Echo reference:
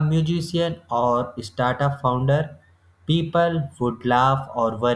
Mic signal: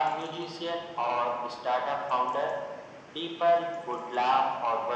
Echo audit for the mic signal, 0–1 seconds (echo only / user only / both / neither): echo only